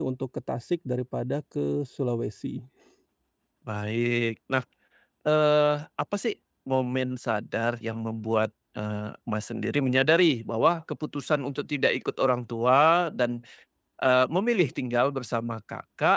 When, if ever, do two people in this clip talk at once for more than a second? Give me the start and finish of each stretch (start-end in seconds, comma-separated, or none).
none